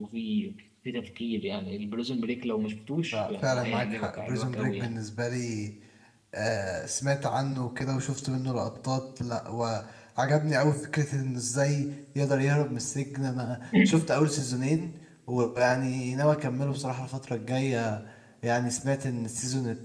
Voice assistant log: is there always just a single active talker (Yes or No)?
No